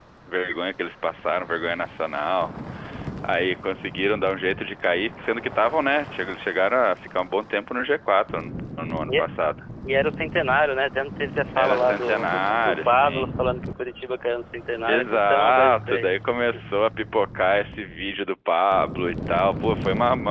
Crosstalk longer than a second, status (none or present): present